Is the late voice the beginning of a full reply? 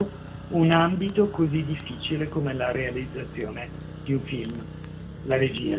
Yes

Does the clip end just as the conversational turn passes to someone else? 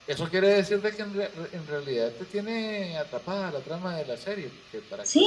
Yes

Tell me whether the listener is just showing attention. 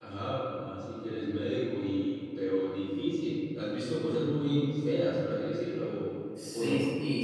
No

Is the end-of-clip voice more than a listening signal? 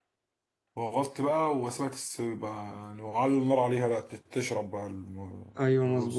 Yes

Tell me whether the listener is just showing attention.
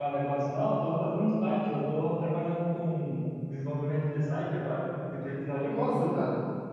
No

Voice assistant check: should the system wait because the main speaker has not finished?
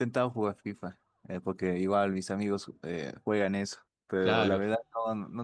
Yes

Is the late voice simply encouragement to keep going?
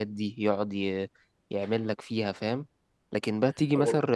Yes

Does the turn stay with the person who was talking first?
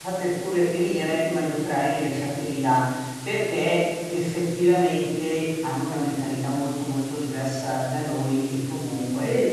Yes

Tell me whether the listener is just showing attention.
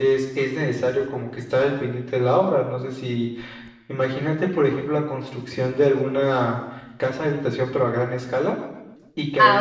Yes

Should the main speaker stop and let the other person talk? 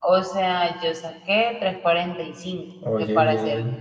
No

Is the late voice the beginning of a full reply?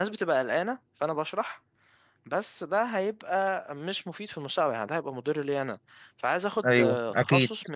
No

